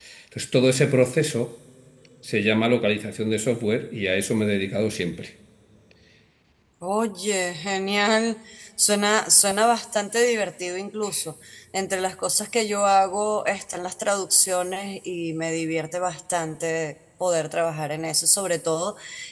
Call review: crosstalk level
none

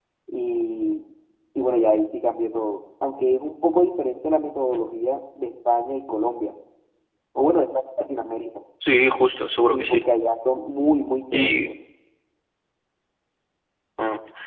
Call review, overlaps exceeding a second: none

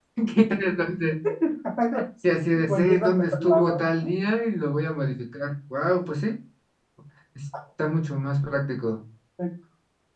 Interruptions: present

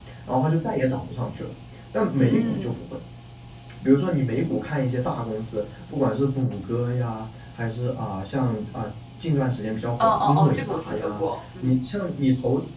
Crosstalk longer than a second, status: present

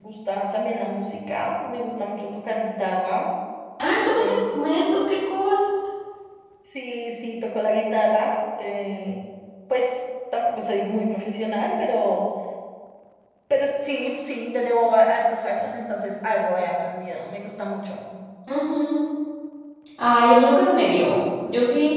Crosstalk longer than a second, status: none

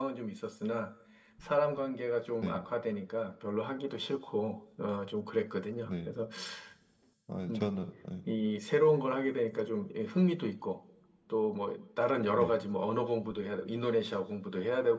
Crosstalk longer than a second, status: none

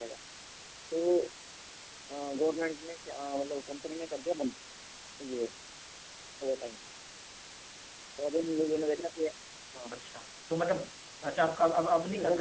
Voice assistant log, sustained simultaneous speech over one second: none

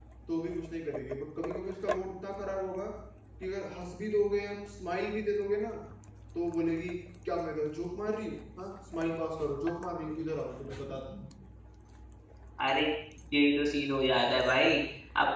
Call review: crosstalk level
none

